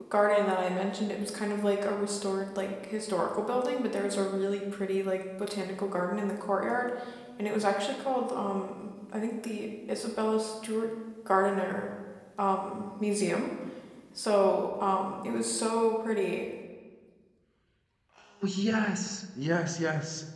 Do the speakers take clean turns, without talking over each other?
Yes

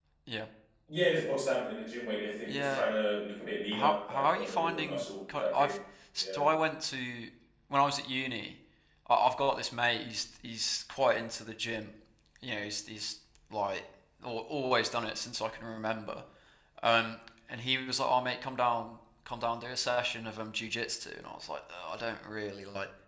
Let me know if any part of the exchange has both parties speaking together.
Yes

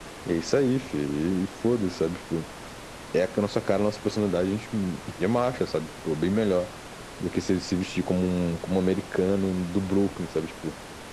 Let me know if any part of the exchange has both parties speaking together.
No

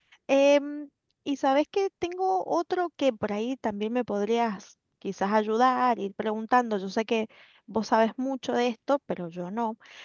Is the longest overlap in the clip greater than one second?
No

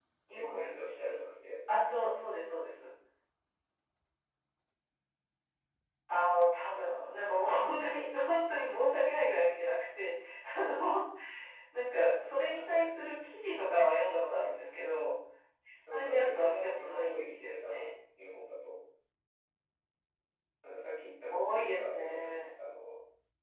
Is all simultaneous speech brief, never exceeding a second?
No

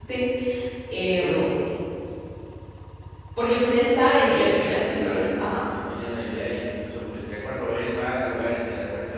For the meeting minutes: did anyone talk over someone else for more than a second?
Yes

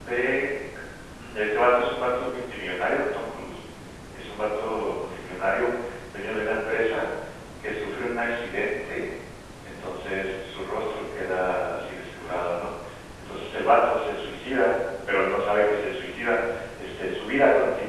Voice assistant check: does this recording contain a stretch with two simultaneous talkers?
No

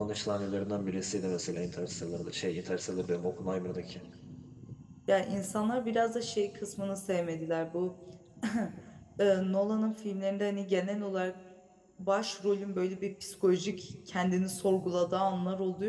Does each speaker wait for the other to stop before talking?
Yes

